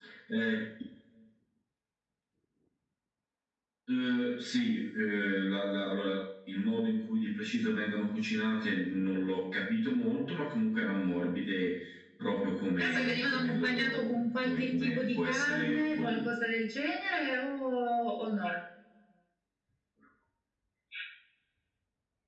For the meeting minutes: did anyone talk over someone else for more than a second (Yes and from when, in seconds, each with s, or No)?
Yes, from 12.8 s